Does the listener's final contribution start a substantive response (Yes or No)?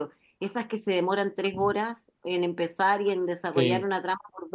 No